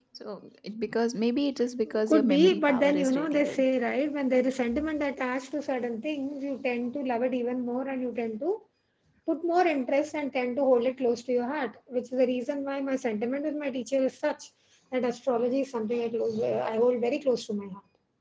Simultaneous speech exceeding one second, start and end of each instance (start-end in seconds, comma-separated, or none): 2.1-3.6